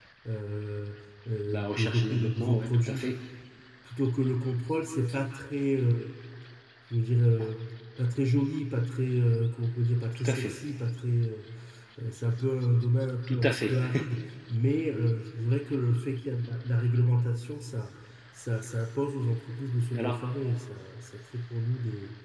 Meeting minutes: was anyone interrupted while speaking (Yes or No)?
Yes